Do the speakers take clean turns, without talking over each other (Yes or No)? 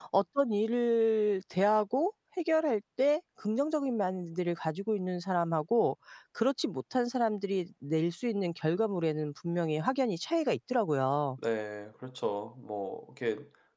Yes